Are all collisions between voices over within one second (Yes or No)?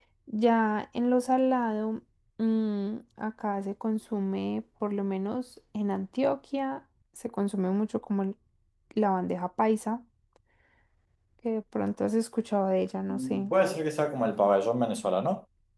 Yes